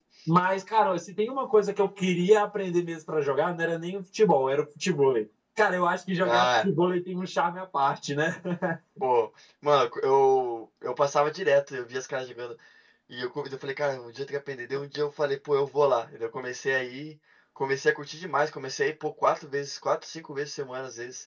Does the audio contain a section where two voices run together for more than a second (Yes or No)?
No